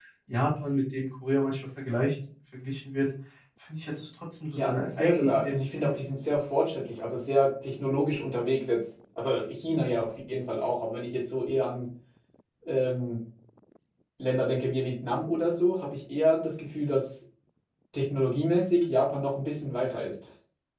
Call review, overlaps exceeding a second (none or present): present